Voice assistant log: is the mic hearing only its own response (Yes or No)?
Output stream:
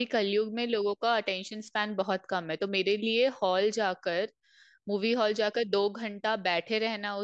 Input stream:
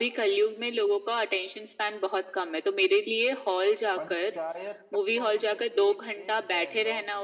No